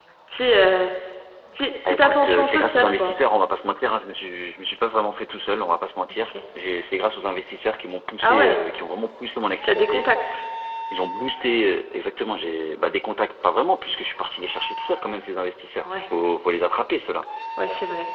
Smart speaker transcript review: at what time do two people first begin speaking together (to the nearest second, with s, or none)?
2 s